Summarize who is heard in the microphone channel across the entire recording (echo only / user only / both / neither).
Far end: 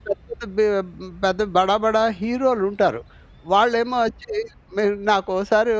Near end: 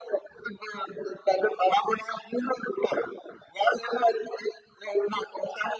echo only